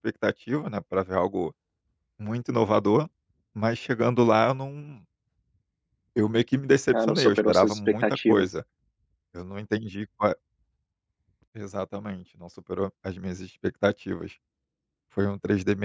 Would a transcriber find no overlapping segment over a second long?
No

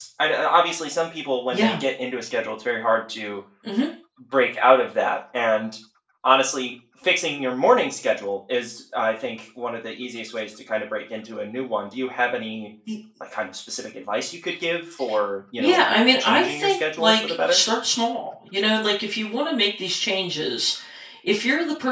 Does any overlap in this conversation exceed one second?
Yes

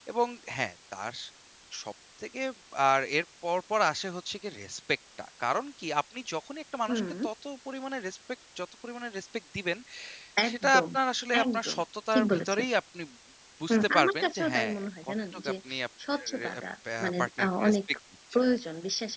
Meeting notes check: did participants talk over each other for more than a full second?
Yes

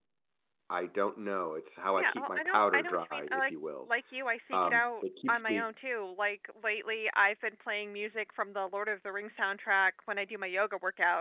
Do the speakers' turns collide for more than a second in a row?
Yes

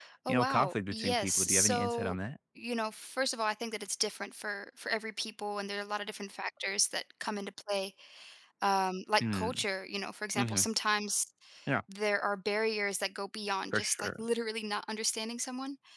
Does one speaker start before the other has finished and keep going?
Yes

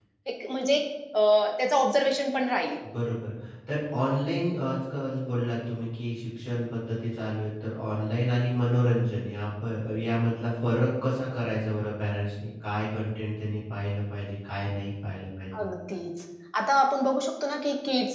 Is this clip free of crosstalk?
Yes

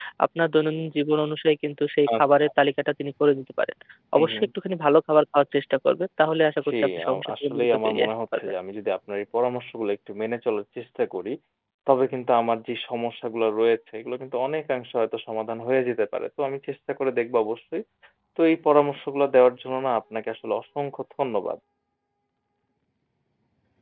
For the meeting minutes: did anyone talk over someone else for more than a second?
Yes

